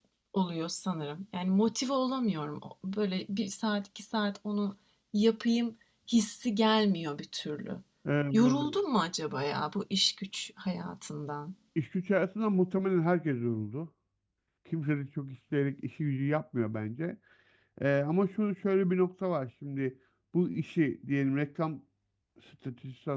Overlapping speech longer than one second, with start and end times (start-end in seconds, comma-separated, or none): none